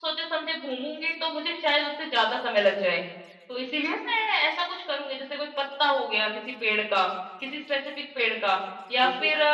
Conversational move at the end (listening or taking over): listening